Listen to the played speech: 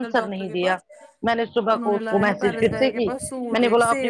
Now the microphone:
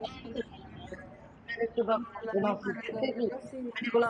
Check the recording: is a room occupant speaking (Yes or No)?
No